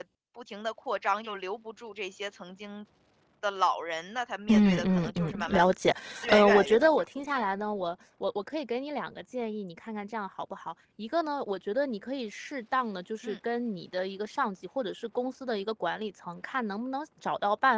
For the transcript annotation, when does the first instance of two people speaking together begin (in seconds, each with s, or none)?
4.5 s